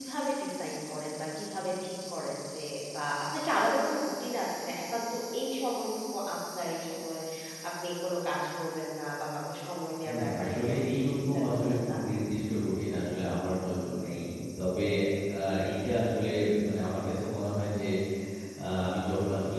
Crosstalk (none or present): present